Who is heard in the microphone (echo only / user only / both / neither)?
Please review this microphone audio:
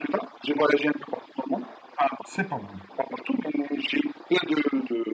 both